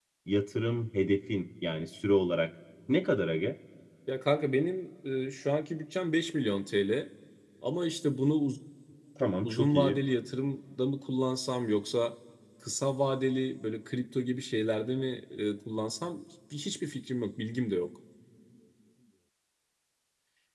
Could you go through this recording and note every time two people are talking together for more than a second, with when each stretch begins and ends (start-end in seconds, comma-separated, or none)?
none